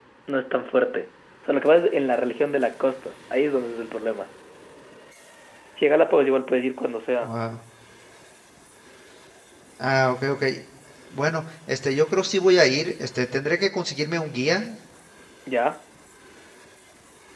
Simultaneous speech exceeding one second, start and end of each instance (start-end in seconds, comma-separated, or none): none